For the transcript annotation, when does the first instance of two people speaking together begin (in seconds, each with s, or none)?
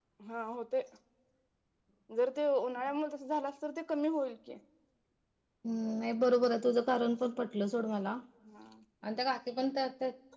none